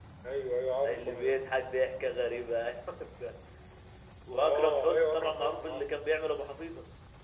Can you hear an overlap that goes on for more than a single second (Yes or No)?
Yes